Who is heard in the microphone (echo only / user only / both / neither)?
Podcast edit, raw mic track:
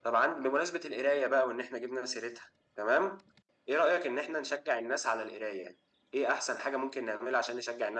echo only